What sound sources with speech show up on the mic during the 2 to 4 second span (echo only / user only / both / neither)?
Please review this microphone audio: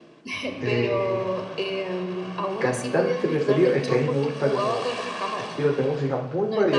both